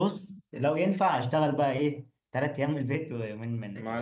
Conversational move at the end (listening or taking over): taking over